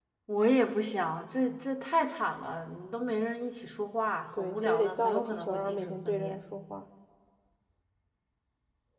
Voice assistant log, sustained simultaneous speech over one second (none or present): present